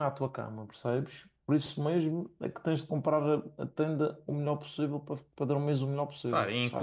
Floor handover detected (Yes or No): Yes